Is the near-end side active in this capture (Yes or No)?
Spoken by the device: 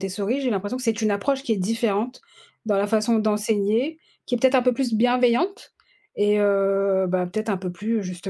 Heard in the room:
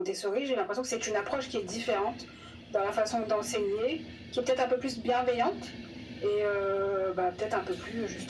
No